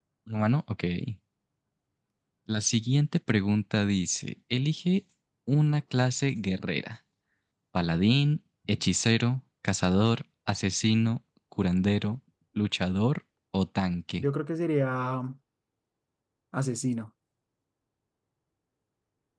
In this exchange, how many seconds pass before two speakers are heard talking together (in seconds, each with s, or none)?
none